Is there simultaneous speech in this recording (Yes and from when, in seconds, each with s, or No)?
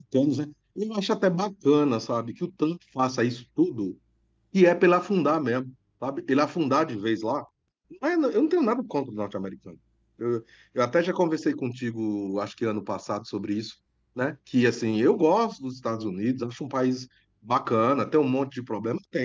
No